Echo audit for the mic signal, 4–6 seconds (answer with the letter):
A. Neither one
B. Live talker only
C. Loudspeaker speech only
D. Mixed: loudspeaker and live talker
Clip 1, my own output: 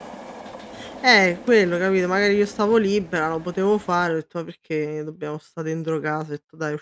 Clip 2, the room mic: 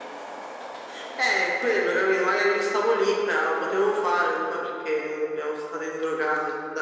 C